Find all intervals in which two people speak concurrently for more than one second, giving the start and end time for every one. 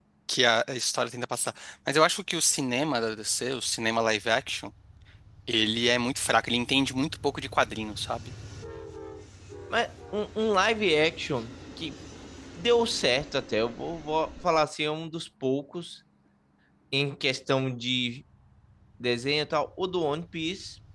none

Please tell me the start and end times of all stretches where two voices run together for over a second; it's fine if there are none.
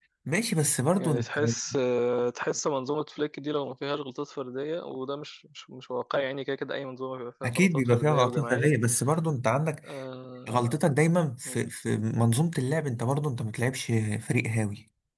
7.5-8.7

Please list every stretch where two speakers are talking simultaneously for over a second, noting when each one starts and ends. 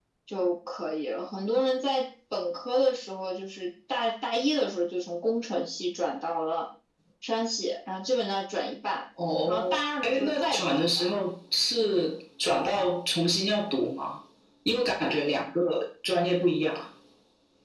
9.5-11.1

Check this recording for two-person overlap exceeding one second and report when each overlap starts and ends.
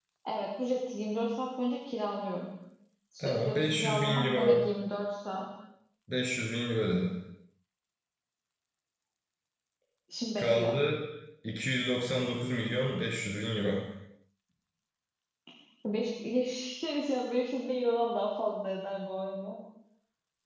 3.2-4.6

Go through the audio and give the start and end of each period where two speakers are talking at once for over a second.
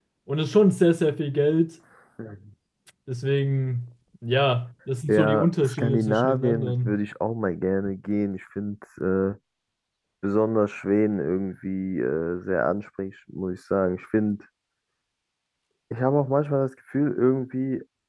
5.1-7.0

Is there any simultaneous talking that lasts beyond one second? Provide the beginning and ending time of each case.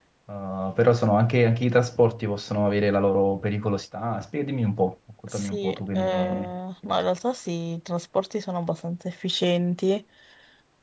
5.3-6.5

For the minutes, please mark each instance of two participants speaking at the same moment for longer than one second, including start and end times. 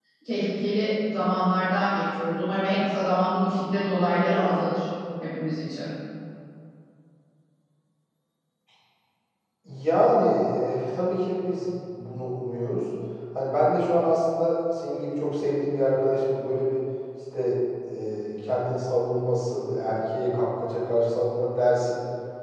none

